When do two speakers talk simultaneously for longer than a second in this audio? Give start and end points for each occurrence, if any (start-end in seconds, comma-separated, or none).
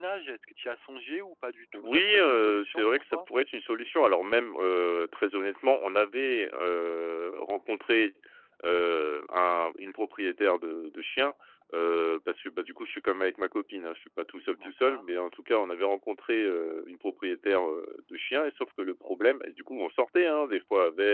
1.7-3.2